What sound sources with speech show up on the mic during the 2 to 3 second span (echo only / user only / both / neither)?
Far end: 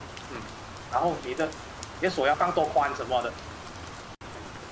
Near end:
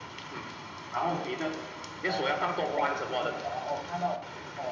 both